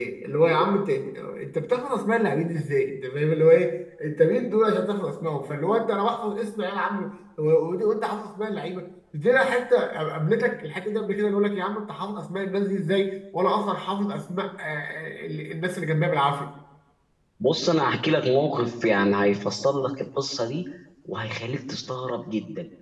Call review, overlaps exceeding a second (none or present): none